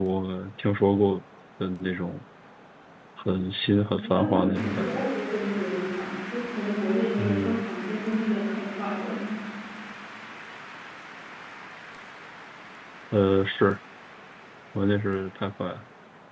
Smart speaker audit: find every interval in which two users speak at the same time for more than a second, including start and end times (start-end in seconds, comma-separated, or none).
3.8-5.0